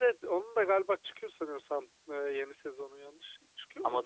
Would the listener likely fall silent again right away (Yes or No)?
No